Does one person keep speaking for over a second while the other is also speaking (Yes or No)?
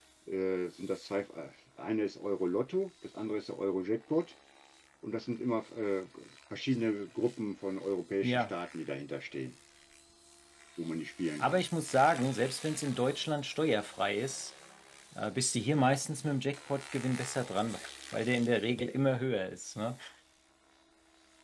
No